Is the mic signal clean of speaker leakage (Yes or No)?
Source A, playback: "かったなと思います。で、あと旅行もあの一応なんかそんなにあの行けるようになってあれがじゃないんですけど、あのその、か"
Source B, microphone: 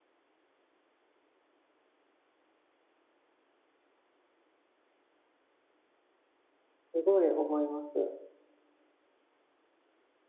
Yes